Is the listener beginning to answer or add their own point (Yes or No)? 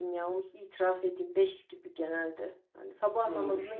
Yes